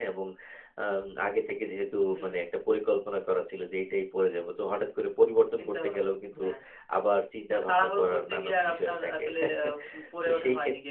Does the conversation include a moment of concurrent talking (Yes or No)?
Yes